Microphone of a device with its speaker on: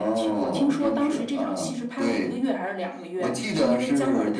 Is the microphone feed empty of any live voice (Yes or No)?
Yes